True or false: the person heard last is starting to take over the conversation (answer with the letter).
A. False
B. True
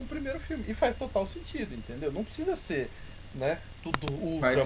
B